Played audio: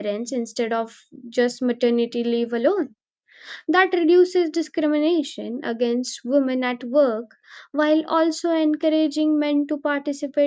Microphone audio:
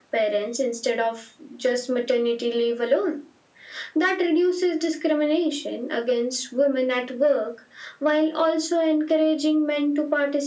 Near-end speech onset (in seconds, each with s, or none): none